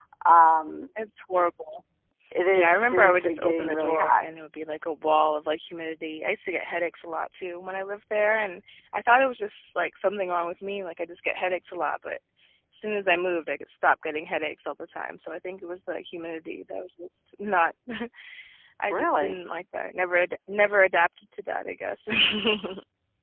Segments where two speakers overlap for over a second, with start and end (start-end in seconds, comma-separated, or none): 2.5-4.2